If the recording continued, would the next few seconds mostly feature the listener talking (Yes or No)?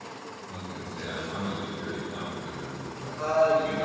Yes